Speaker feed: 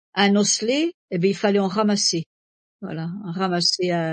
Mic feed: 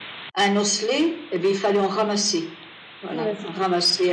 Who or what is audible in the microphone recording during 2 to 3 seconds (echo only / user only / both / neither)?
echo only